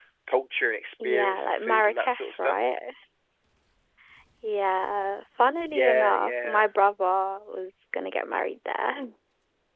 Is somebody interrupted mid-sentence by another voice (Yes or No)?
Yes